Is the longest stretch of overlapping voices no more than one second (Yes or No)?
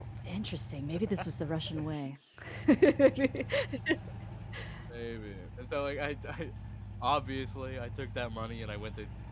Yes